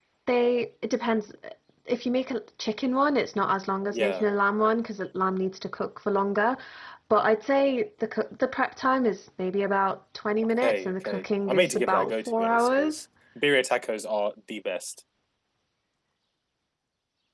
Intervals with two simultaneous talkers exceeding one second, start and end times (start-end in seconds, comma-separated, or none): 10.6-13.0